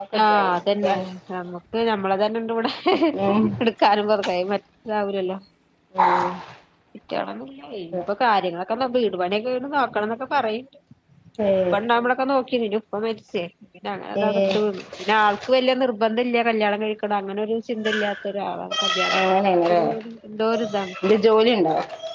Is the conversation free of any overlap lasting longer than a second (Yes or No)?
Yes